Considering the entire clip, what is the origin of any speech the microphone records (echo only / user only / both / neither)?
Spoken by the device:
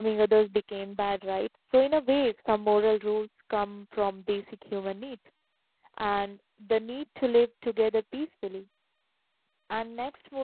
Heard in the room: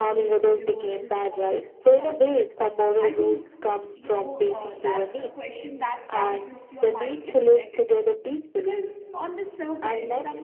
both